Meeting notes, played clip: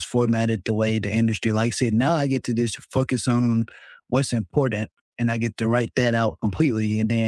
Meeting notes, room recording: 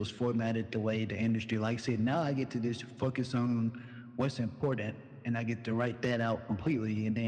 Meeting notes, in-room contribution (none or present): none